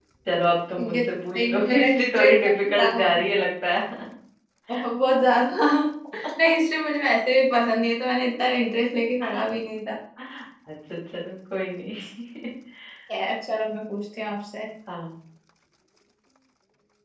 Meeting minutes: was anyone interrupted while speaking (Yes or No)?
Yes